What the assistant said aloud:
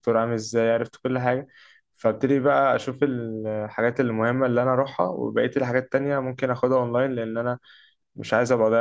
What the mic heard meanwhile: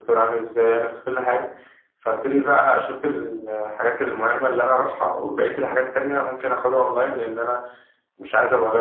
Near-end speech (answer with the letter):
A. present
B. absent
B